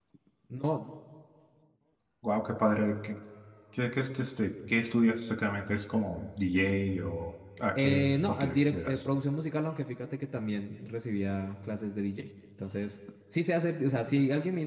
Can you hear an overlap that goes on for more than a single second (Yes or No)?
Yes